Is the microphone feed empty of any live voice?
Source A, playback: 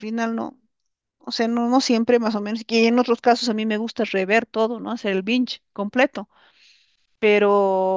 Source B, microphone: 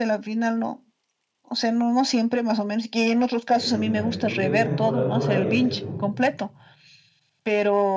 No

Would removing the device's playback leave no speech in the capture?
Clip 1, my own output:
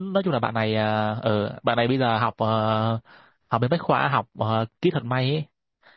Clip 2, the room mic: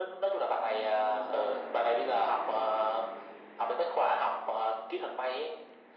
Yes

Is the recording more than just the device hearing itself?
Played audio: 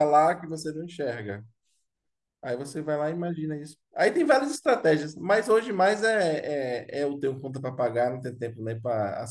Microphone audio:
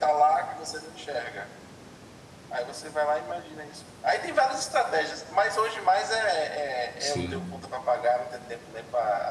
Yes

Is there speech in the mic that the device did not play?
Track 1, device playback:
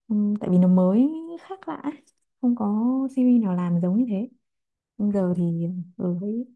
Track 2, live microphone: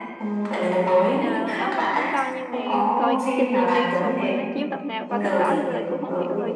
Yes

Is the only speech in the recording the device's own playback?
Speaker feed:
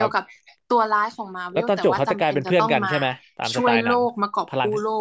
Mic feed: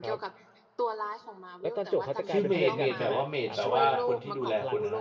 No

